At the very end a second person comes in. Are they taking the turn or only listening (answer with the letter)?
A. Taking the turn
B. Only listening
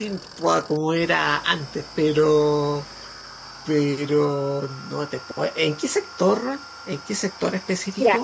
A